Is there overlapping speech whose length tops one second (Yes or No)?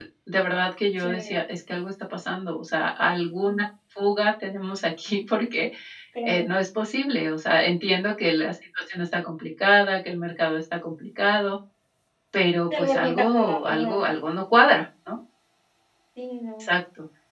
Yes